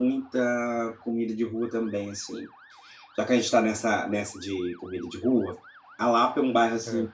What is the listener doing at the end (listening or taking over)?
listening